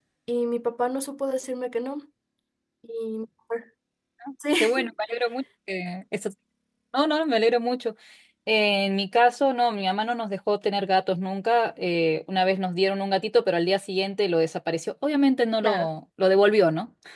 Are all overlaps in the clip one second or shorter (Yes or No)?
Yes